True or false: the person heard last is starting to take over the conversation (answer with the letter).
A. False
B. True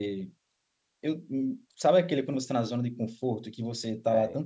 A